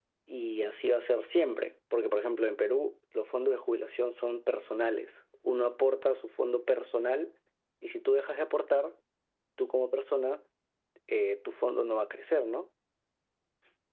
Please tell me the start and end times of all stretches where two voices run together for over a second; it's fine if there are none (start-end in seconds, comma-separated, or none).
none